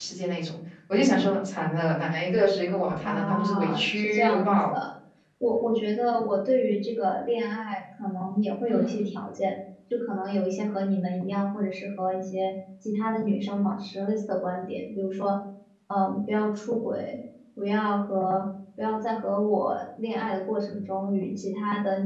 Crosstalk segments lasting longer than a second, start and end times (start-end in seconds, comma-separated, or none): 3.0-4.6